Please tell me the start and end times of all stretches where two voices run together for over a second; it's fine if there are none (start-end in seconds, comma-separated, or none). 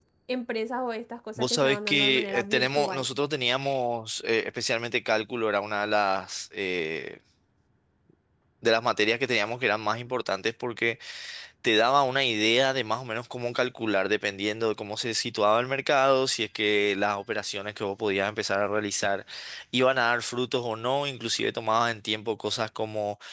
1.4-3.1